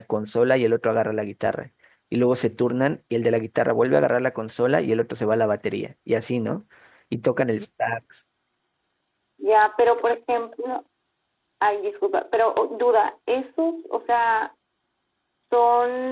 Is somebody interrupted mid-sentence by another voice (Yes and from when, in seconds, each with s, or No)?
No